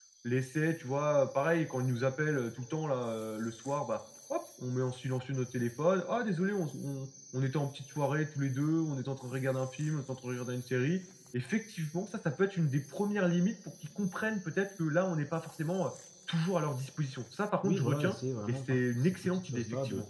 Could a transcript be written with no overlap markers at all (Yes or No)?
No